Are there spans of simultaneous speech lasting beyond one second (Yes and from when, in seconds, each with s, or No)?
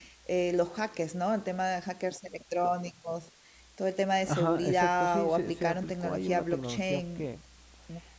Yes, from 4.2 s